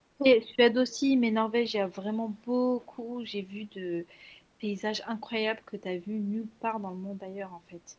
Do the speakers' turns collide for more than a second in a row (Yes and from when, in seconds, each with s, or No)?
No